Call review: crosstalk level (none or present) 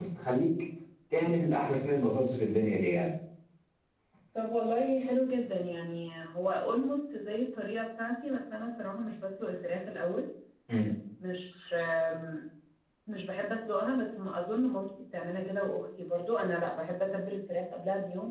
none